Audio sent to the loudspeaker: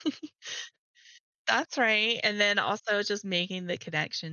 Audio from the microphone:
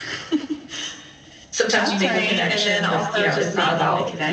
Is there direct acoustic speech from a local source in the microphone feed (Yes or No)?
Yes